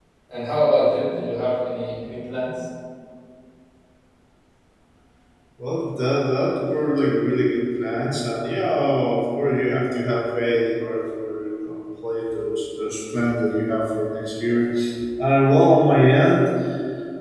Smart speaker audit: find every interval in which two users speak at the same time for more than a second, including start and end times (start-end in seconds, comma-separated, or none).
none